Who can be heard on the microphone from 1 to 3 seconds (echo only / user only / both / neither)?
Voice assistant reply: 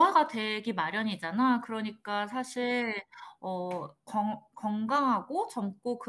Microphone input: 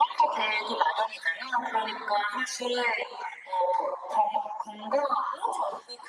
echo only